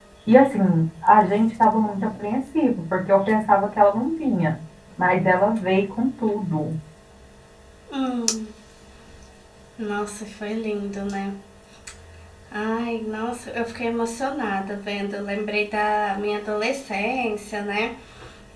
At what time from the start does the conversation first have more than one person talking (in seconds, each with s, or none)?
none